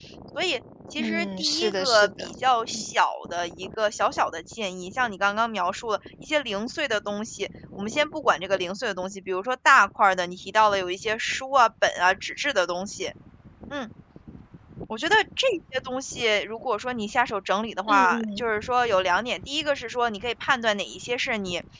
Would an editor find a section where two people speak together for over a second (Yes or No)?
Yes